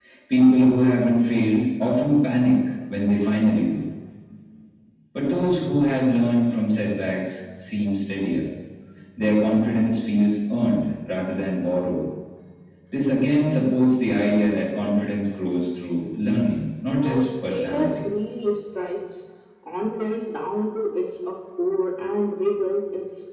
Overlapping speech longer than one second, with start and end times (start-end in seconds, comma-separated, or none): 16.9-18.1